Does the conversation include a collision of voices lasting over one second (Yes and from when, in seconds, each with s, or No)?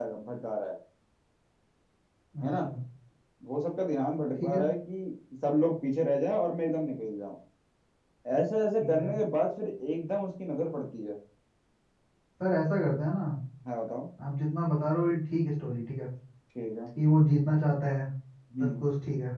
No